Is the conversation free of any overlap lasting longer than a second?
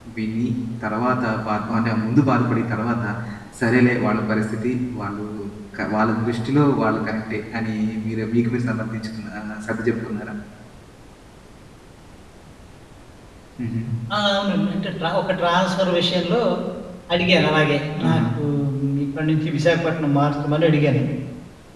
Yes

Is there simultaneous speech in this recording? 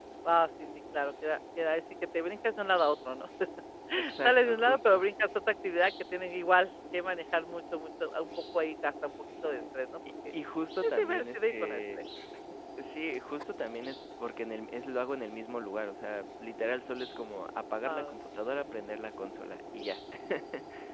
Yes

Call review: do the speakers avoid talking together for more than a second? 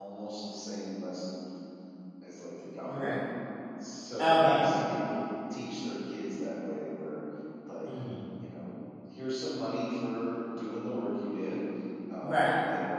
Yes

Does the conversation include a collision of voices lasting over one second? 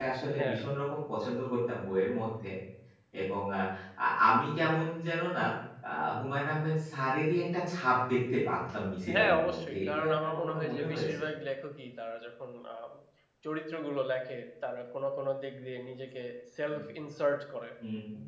Yes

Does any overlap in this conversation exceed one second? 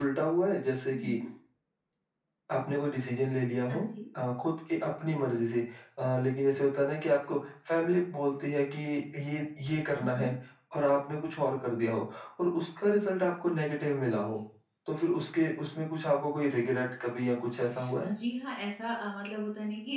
No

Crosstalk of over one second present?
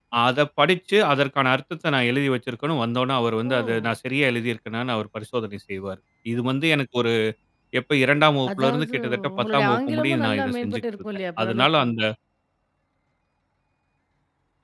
Yes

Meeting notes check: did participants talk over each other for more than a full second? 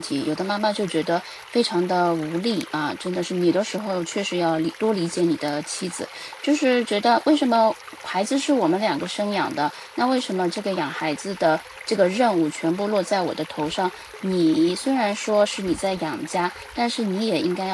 No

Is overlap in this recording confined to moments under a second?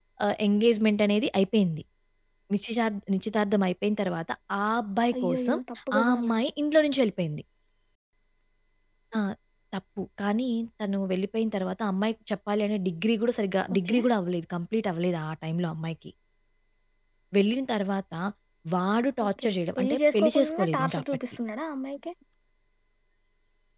No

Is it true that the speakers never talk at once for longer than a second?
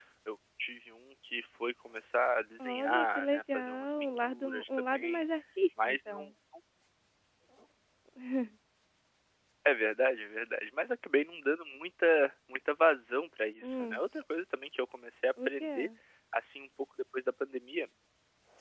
No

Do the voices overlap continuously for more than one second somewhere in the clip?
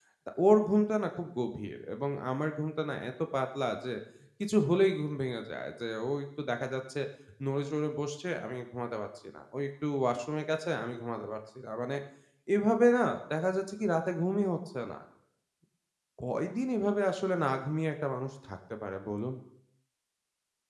No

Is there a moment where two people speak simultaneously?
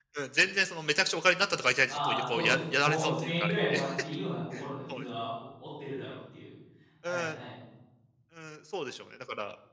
Yes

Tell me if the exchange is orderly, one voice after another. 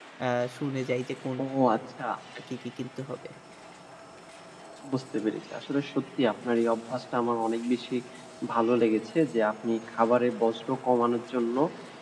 Yes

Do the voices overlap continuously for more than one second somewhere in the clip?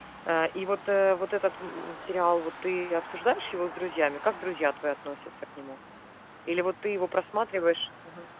No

